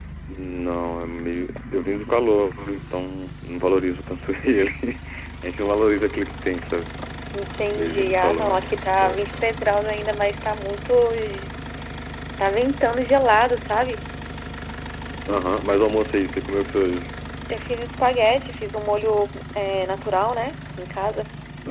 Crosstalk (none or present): present